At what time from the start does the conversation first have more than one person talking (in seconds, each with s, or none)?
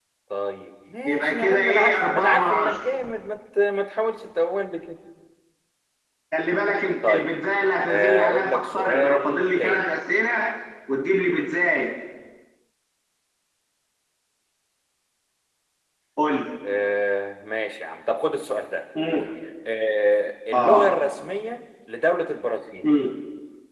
1.1 s